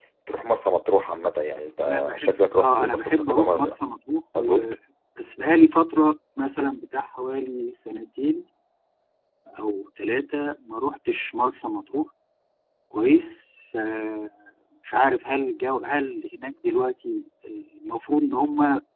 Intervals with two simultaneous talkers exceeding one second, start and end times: 1.9-3.8

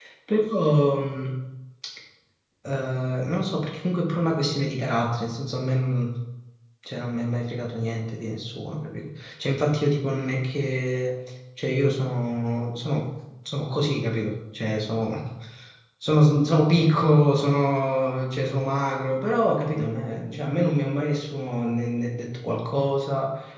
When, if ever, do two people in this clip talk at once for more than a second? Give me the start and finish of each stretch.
none

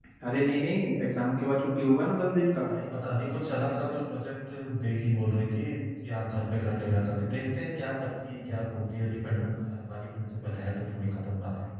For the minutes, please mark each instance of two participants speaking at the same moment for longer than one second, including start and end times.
none

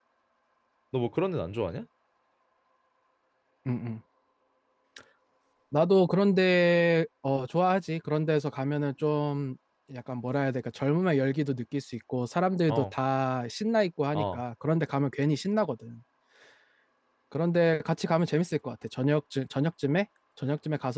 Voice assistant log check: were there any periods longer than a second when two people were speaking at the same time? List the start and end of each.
none

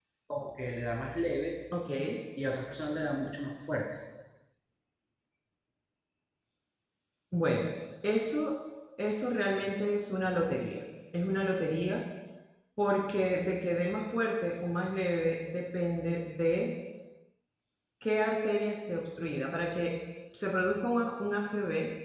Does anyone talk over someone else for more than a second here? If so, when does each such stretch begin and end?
none

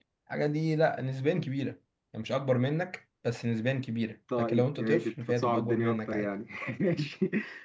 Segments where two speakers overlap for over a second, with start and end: 4.4-6.3

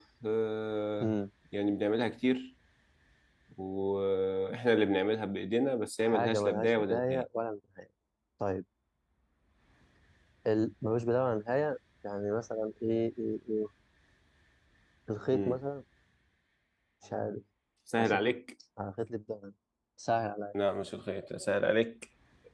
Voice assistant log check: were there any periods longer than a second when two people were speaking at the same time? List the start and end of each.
6.0-7.2

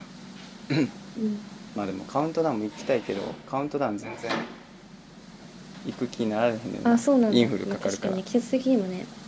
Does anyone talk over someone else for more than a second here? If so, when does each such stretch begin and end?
6.8-8.2

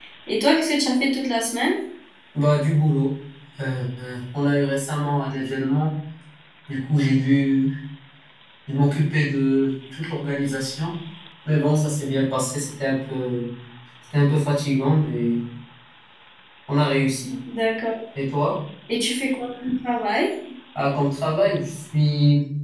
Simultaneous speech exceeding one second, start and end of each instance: none

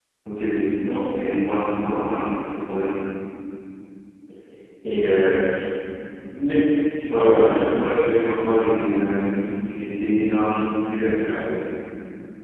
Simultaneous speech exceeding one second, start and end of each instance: 7.1-8.4

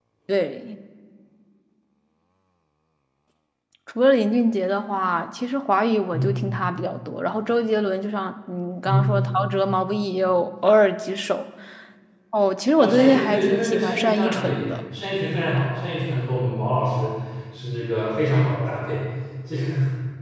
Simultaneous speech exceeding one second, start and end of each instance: 12.8-14.6

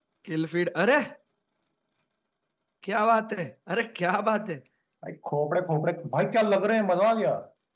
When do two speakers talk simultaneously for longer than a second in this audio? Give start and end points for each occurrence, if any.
none

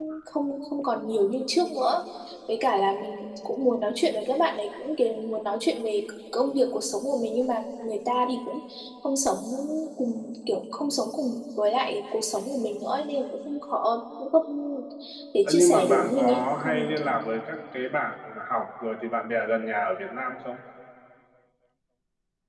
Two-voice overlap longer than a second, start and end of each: 15.5-17.1

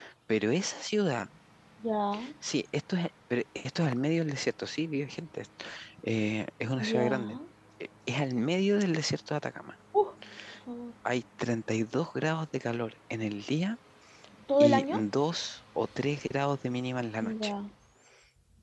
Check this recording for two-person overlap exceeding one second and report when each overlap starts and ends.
none

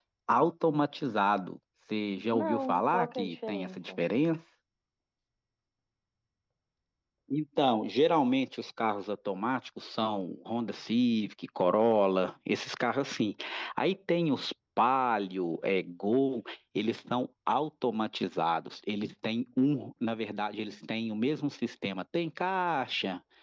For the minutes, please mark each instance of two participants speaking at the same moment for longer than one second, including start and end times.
2.3-4.0

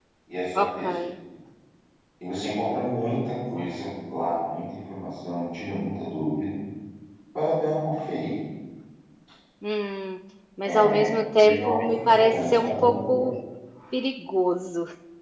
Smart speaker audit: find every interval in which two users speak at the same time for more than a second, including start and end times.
11.4-13.2

